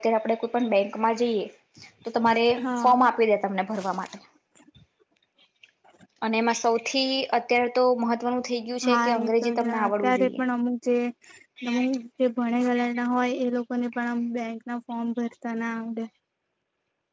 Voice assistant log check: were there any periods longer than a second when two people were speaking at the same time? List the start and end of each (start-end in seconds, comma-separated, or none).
8.8-10.4